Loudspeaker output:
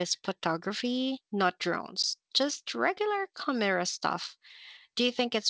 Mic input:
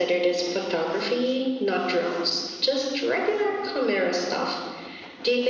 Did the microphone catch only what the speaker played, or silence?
Yes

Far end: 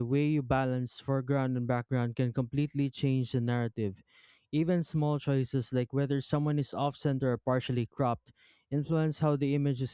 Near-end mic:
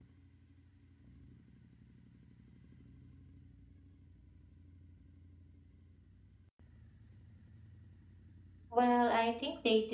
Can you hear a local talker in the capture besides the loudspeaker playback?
Yes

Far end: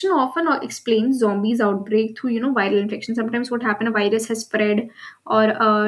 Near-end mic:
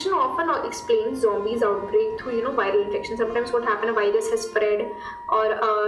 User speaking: No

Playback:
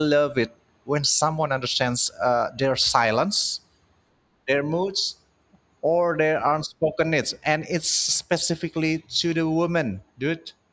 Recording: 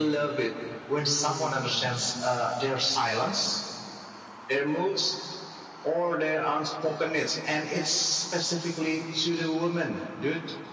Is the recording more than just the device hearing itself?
Yes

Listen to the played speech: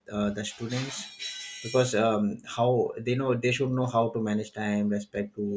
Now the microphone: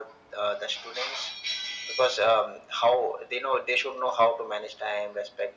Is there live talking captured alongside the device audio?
No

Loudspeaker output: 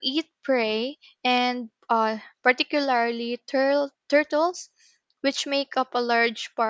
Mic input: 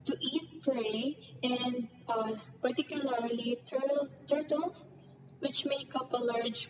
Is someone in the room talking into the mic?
No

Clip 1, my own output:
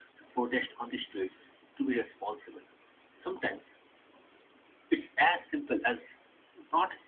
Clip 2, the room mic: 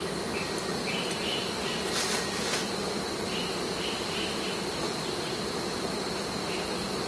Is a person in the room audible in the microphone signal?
No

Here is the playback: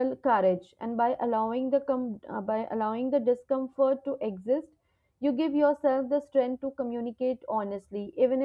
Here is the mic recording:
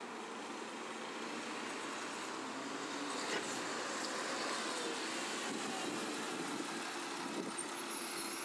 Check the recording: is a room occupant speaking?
No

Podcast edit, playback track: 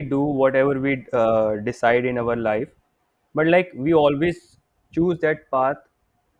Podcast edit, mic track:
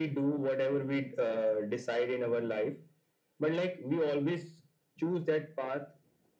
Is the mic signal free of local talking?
Yes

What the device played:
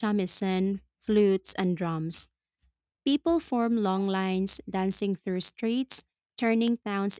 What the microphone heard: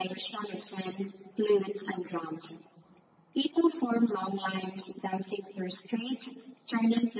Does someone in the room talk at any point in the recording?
No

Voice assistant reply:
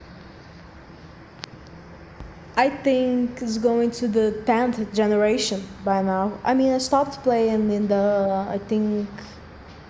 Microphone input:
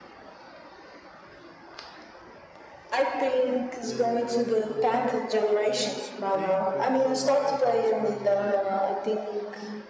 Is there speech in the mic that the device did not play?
Yes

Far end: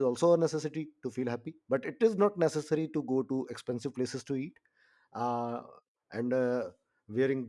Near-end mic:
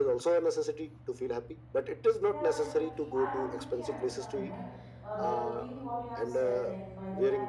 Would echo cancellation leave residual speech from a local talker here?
Yes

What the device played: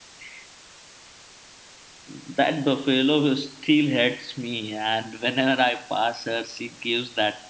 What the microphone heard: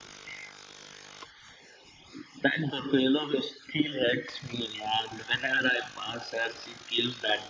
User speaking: No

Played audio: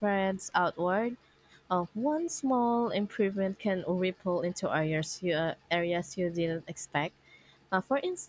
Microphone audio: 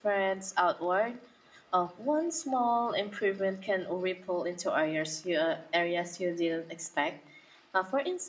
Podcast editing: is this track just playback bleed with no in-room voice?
Yes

